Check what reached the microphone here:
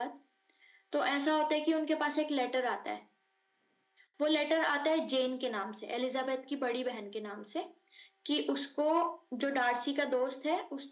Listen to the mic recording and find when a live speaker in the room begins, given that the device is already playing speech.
none

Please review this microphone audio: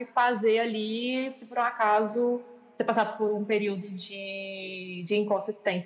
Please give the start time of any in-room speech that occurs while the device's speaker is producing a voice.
none

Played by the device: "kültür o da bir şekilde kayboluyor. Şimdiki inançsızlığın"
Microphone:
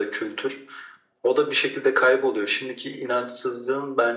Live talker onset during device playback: none

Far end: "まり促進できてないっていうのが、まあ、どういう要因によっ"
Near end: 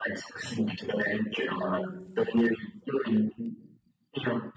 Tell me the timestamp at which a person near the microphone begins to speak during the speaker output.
1.5 s

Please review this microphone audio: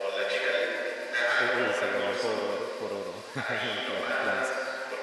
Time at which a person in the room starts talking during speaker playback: 1.3 s

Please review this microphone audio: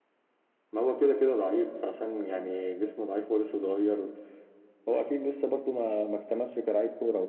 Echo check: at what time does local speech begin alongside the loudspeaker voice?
none

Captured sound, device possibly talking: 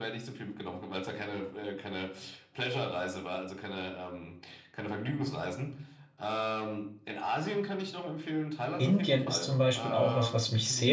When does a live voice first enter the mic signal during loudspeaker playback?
8.8 s

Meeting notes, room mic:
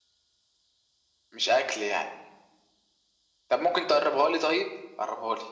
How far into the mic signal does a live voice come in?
none

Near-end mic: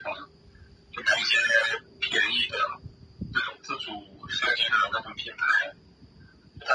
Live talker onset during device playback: none

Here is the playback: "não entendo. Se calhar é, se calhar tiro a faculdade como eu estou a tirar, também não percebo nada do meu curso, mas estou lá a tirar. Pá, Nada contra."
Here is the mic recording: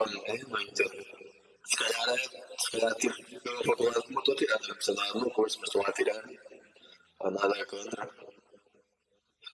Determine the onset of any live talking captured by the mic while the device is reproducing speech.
none

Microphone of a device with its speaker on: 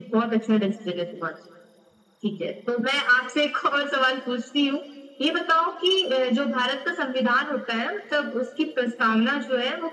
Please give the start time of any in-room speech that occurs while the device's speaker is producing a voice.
none

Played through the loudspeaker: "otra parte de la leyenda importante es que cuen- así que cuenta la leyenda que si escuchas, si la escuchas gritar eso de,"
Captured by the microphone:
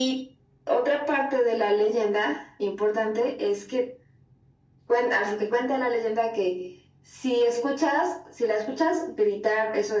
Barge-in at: none

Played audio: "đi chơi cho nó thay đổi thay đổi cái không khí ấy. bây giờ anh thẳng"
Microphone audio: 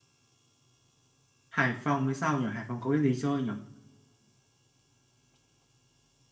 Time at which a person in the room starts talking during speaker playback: 1.5 s

